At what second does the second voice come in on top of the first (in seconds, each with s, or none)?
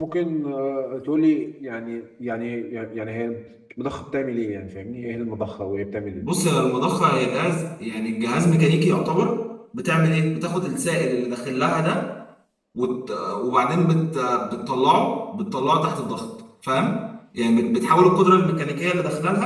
none